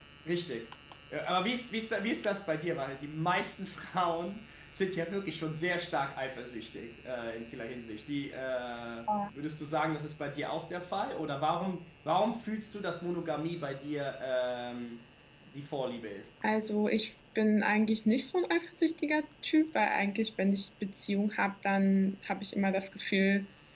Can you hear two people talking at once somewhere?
No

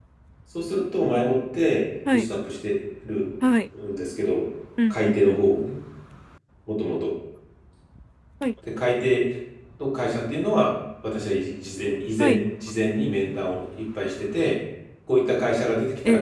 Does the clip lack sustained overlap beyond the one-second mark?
Yes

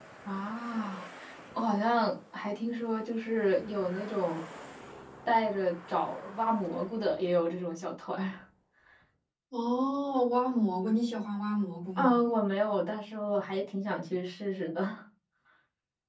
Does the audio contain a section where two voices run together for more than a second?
No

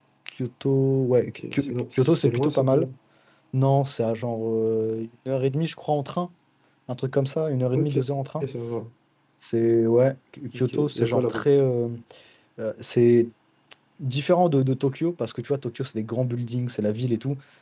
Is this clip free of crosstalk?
No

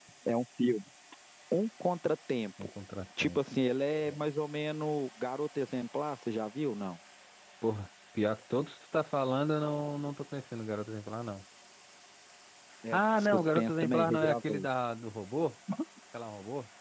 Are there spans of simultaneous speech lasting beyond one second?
Yes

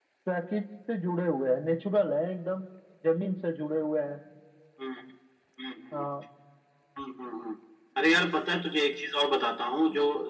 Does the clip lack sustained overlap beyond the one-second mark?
Yes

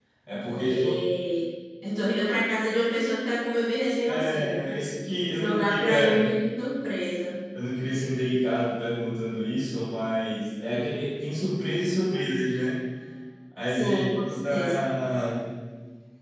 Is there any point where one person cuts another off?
Yes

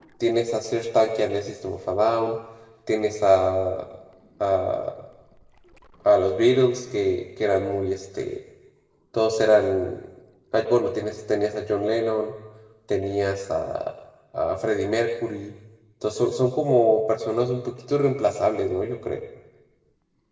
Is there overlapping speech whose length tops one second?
No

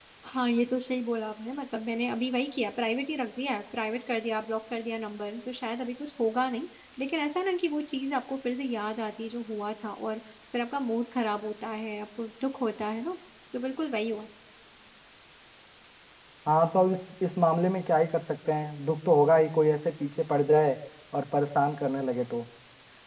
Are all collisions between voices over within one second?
Yes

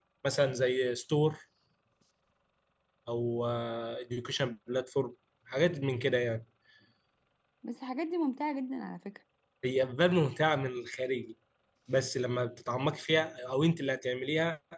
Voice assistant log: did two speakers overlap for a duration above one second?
No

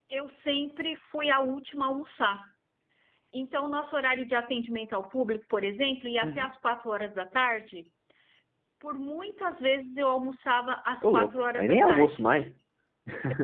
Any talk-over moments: Yes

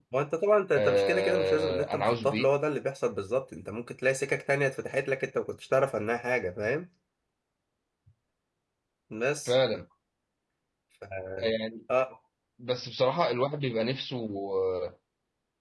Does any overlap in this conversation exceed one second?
Yes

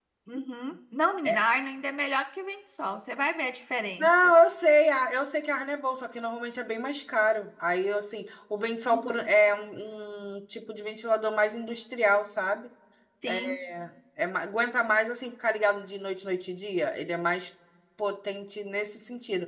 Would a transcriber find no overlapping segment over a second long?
Yes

